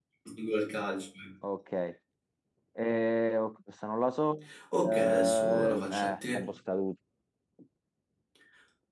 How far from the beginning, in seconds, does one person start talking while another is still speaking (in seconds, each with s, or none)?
4.7 s